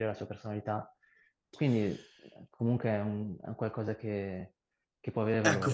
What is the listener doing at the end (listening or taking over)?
taking over